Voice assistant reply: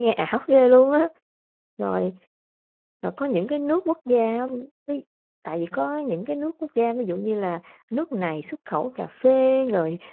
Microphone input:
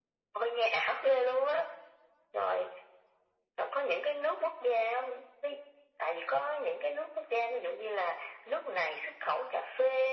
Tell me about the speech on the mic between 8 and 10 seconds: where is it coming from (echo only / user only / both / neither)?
echo only